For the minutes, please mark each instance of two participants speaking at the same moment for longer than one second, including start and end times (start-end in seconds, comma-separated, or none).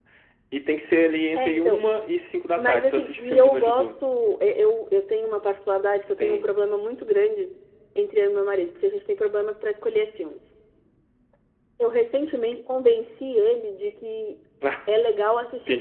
2.6-3.9